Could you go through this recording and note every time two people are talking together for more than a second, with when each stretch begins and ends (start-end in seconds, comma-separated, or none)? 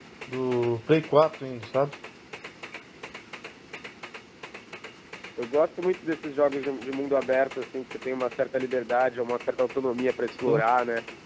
none